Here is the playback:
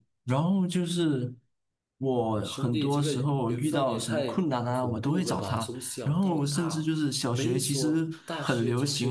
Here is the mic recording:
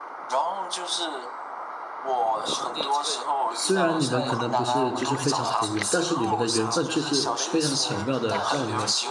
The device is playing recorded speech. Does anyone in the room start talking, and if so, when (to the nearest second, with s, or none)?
4 s